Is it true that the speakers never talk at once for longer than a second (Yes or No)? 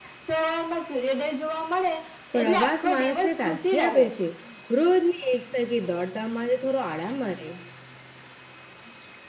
No